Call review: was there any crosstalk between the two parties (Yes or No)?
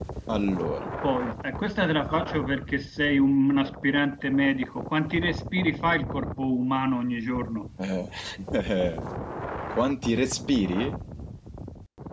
No